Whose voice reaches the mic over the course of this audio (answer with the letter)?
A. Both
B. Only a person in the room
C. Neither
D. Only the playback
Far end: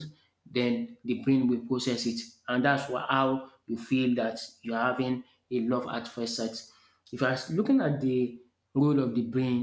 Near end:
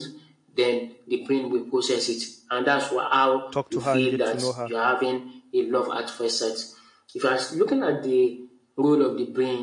A